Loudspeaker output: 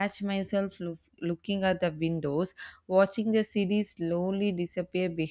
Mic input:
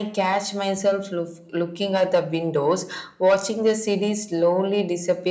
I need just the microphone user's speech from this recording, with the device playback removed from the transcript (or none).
none